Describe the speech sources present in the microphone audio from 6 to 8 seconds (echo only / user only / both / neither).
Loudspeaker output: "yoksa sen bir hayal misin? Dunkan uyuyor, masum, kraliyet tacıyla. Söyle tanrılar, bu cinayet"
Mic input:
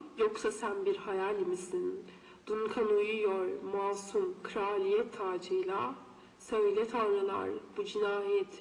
echo only